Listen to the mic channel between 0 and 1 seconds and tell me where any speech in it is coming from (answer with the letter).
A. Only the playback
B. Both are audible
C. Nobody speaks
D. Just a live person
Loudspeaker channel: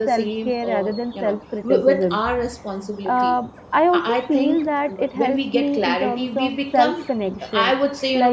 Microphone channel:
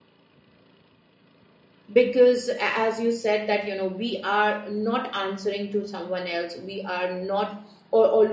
C